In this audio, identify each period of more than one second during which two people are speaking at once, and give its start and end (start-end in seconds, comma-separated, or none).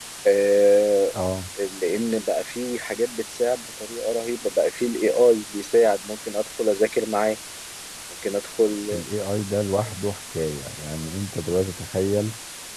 none